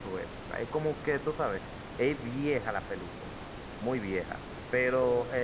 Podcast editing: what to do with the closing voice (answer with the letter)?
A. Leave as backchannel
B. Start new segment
A